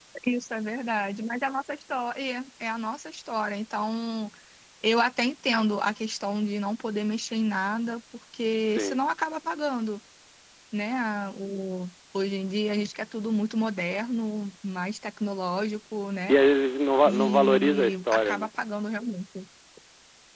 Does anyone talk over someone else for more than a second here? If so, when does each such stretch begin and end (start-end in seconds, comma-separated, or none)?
17.1-18.5